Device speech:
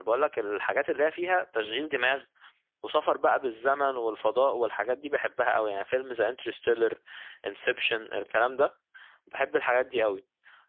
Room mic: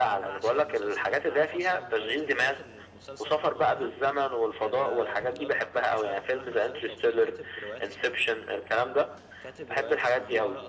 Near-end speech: present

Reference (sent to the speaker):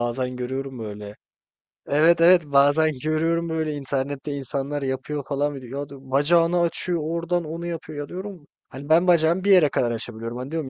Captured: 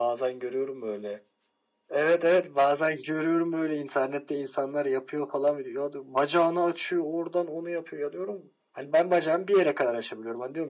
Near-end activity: none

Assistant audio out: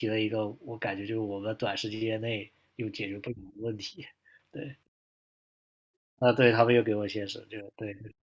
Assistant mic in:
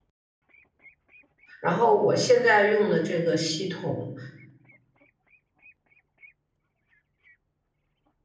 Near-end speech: present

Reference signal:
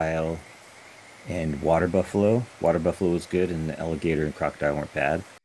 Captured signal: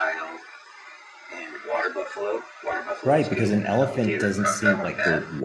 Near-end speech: present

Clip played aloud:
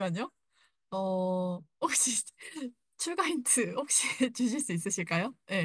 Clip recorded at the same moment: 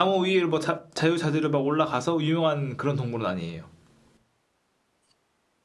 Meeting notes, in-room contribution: present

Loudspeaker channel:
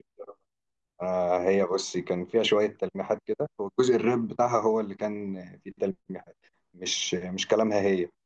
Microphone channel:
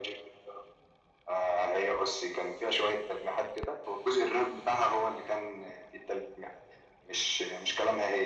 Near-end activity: none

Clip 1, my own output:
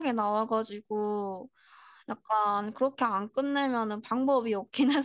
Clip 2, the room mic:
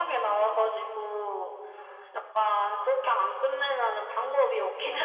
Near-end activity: none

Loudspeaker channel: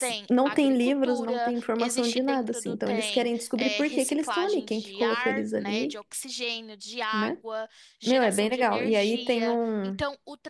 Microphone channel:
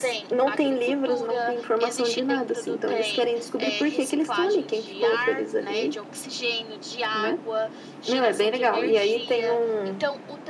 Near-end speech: none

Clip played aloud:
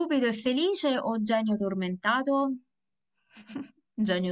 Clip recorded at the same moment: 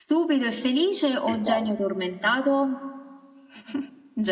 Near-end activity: present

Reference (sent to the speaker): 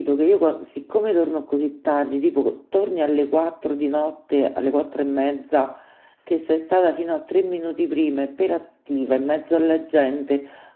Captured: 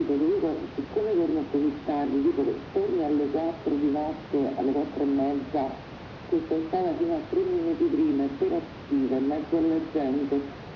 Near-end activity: none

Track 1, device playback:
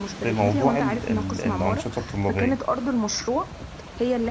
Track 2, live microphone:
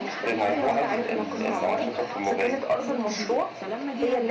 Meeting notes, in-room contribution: present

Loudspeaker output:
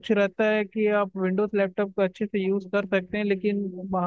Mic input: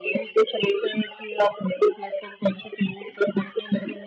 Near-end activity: none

